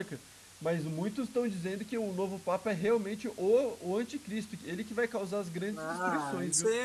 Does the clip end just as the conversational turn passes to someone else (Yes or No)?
Yes